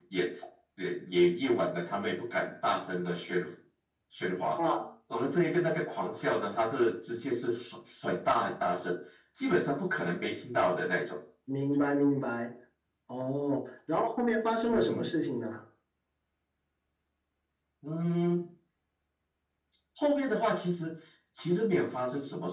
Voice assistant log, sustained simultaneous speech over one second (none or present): none